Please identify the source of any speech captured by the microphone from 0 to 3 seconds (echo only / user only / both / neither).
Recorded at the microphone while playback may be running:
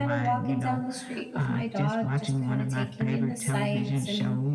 both